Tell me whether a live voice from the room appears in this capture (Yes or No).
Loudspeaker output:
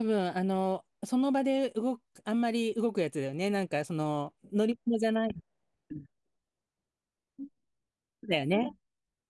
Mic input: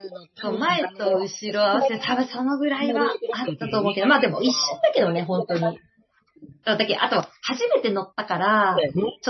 Yes